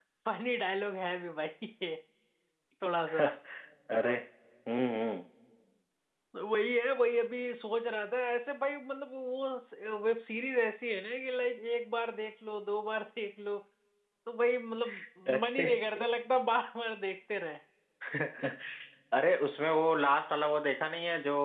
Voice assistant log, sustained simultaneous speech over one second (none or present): none